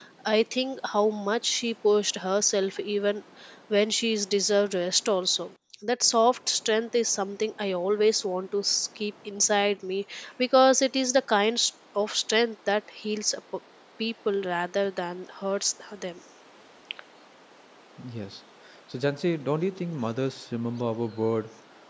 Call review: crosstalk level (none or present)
none